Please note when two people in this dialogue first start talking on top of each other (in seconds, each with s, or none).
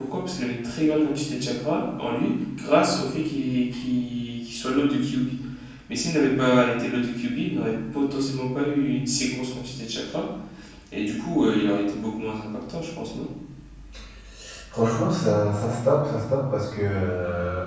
none